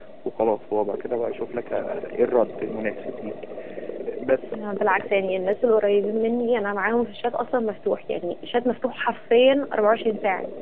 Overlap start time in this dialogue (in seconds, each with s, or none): none